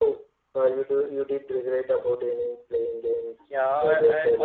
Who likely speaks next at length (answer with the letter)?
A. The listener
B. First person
A